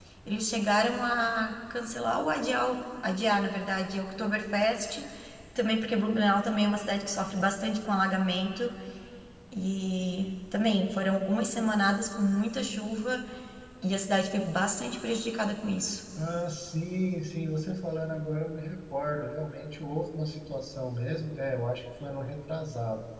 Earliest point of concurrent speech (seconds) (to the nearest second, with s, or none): none